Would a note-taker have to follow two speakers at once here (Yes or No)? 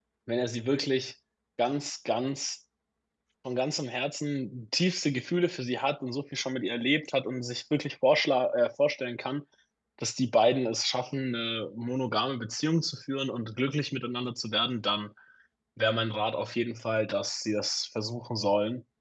No